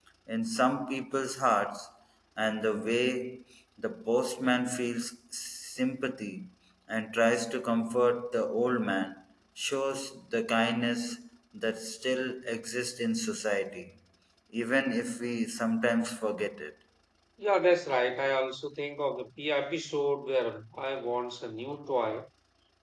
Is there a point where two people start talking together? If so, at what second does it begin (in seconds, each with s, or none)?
none